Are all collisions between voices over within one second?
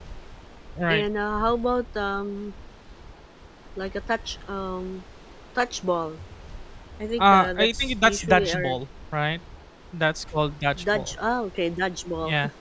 No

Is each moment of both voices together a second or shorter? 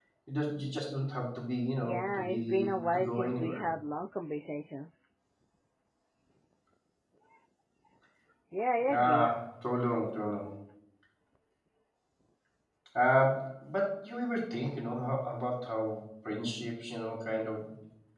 No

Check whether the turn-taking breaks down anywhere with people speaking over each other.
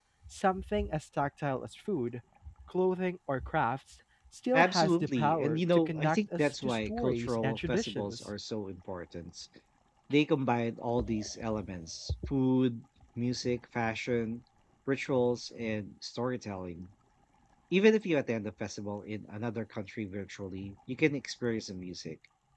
Yes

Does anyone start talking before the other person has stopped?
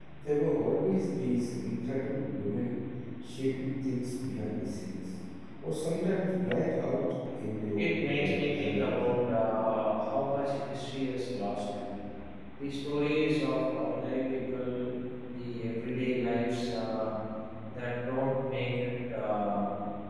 Yes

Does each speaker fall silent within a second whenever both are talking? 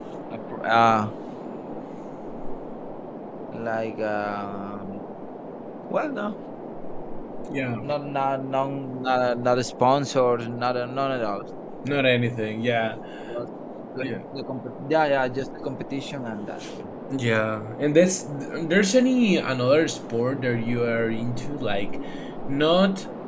Yes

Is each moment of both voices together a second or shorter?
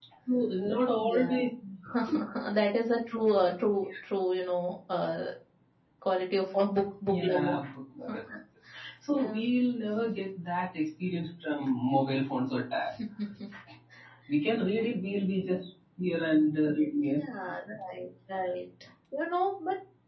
Yes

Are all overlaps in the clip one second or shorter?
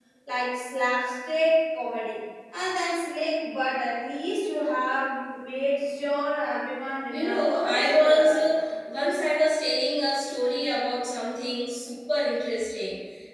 No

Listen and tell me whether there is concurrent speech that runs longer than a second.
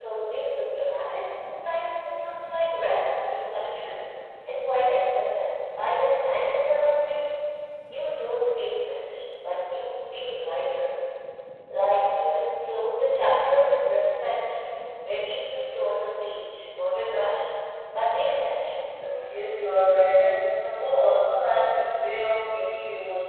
No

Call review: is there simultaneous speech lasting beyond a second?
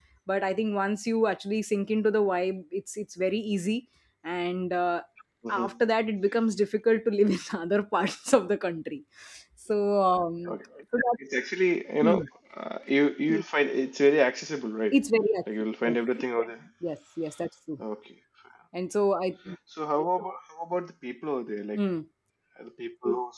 No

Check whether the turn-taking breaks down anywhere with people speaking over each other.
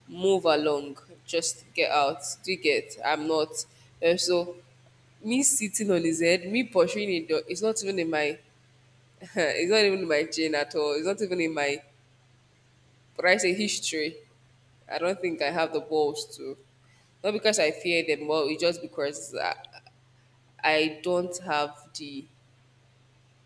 No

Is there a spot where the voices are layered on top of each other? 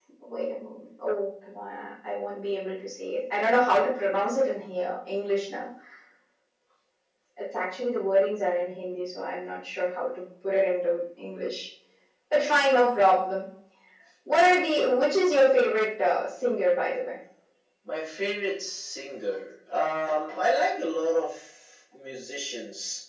No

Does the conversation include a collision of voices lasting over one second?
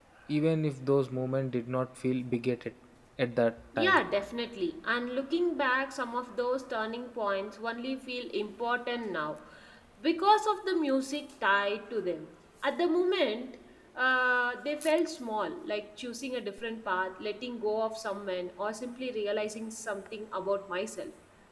No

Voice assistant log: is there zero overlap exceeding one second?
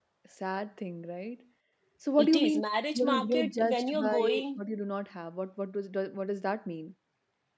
No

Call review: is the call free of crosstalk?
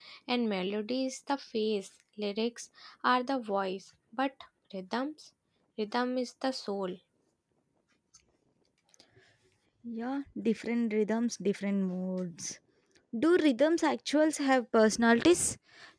Yes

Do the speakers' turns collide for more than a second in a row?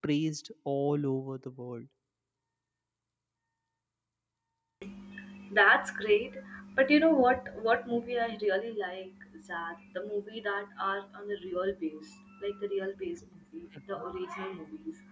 No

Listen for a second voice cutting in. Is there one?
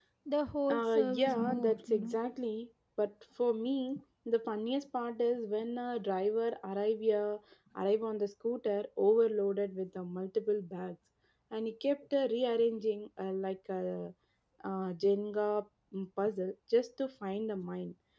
Yes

